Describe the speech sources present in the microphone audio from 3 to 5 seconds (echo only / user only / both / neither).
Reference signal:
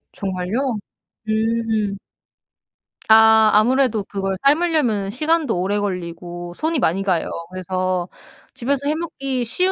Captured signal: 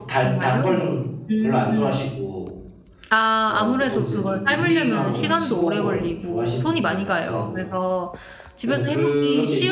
both